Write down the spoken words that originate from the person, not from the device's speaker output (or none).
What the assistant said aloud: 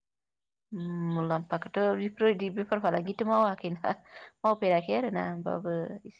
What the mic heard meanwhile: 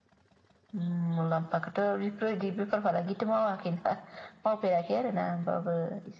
none